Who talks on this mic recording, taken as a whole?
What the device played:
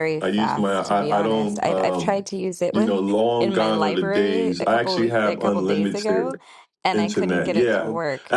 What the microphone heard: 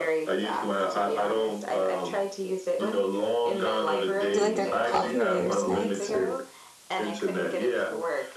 both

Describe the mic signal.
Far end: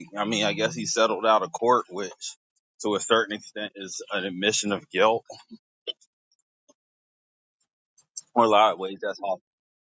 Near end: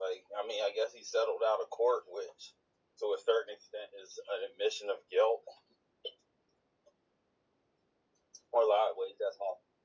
echo only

